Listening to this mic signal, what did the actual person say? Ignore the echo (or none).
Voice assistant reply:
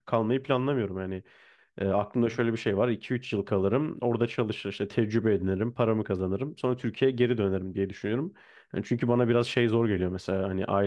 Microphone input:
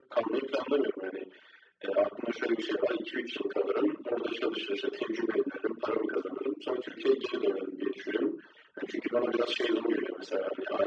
none